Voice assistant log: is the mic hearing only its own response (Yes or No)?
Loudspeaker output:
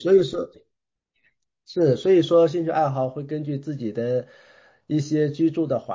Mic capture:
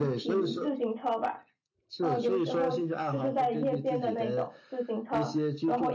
No